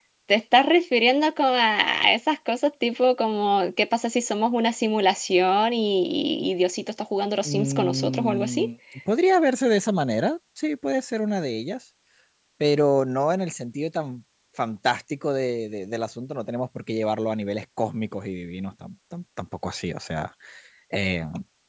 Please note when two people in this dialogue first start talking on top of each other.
7.4 s

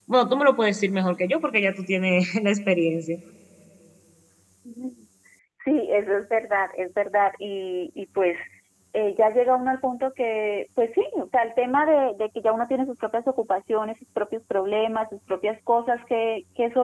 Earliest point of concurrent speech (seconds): none

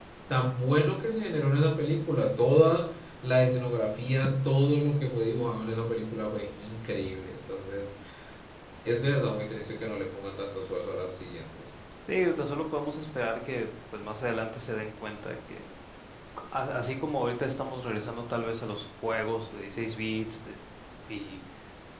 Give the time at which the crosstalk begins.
none

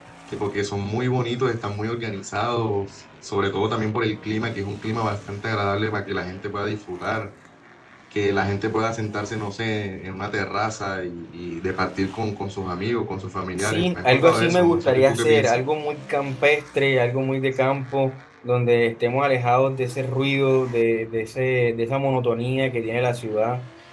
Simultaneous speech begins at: 13.6 s

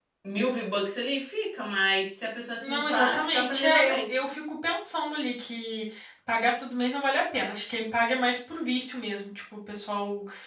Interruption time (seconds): 2.6 s

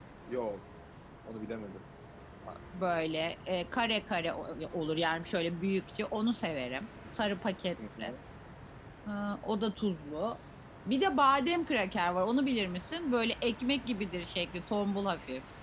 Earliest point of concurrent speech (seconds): none

